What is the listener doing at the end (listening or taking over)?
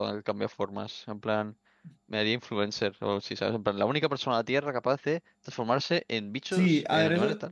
taking over